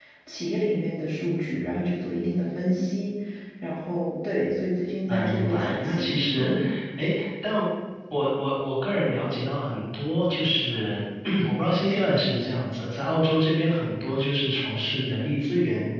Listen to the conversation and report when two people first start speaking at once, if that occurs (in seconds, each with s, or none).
5.1 s